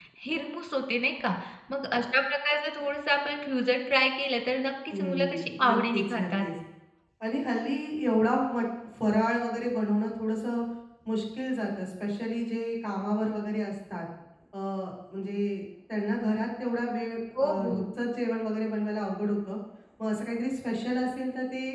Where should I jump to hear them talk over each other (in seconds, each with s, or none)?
4.9 s